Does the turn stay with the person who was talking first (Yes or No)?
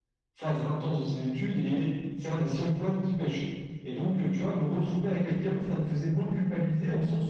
Yes